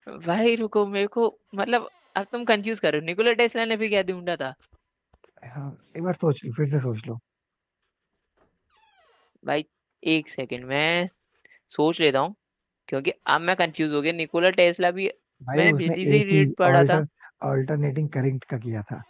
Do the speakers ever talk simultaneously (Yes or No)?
Yes